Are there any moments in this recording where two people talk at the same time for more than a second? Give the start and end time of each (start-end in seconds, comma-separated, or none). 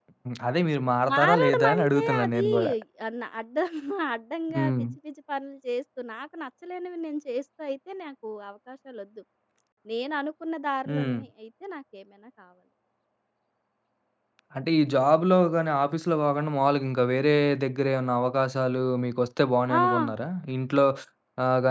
1.1-2.5